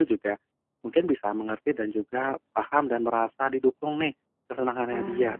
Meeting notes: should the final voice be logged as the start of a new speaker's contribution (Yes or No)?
No